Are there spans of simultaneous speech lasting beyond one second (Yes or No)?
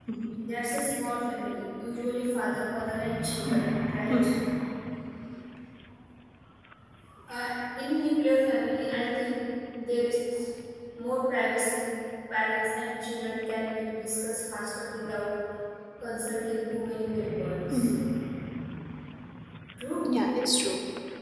No